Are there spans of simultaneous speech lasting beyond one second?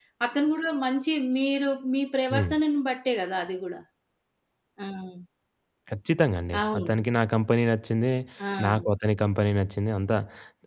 No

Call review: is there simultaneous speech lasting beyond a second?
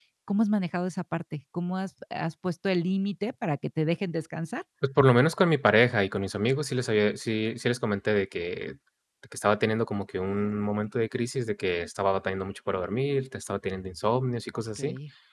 No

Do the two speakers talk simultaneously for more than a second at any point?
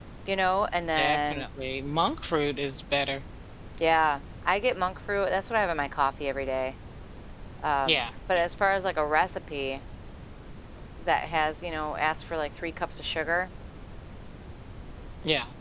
No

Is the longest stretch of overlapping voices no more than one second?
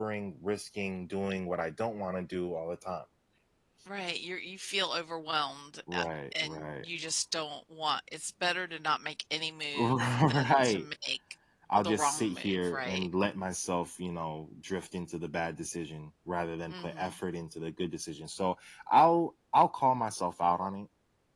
No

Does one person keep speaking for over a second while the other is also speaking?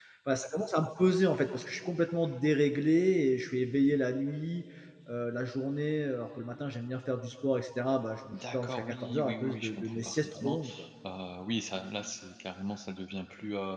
Yes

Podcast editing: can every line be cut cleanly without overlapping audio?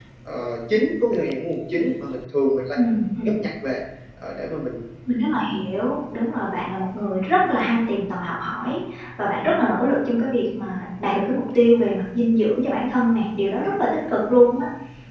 Yes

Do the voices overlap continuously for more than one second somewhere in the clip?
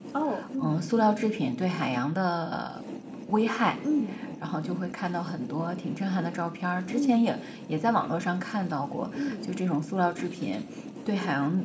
No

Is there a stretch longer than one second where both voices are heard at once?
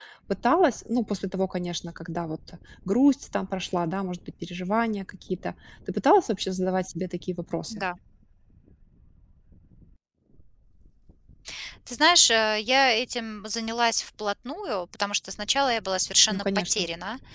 No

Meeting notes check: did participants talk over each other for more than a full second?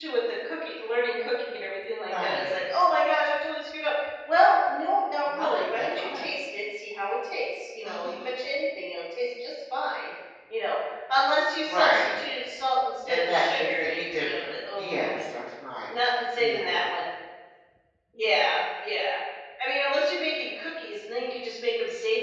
Yes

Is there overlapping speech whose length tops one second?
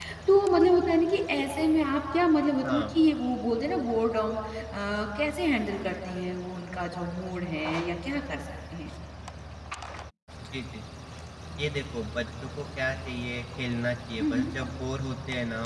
No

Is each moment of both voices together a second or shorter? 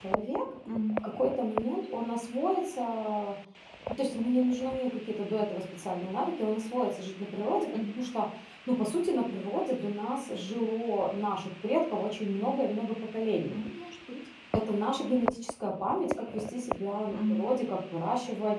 Yes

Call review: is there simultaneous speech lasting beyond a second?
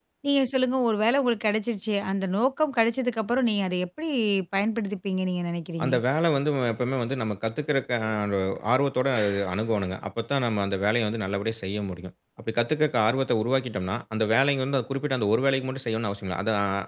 No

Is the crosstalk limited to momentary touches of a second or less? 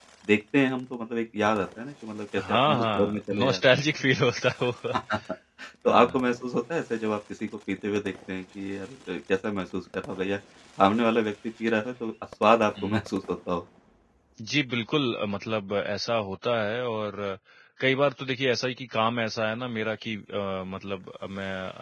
No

